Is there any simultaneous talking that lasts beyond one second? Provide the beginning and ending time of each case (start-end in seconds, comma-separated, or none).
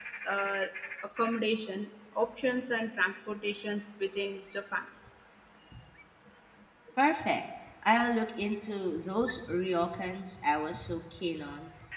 none